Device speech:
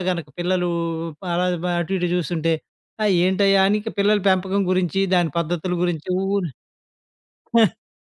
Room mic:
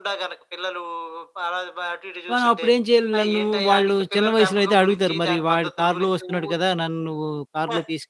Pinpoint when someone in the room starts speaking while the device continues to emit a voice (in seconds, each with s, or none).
2.3 s